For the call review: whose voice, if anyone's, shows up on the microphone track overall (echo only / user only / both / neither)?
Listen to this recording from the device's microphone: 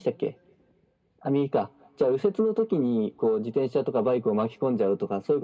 echo only